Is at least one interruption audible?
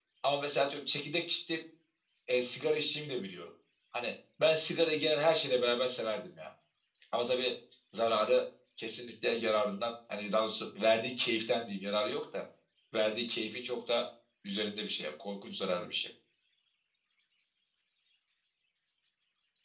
No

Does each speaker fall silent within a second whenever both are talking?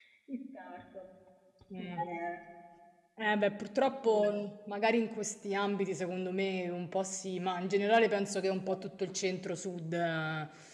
Yes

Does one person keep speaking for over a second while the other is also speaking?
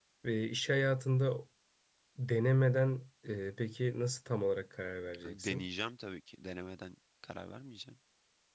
No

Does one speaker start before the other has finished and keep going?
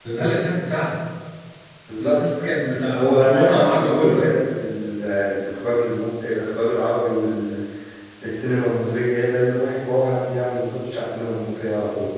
Yes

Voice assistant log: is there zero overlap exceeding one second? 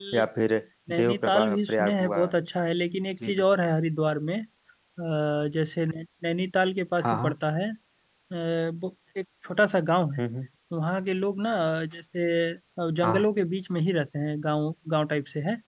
No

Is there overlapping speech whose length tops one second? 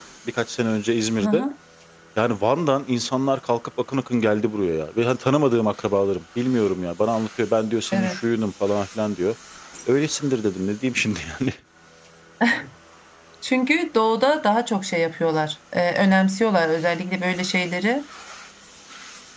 No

